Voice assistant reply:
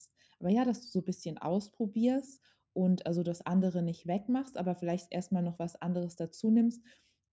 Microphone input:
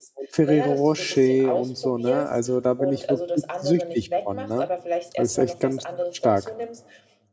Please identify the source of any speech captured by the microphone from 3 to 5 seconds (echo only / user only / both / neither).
both